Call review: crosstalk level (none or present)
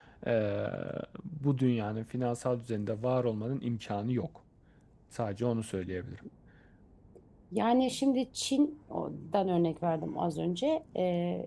none